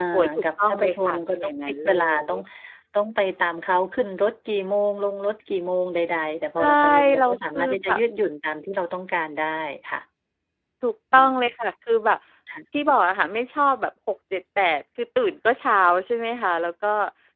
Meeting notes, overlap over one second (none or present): present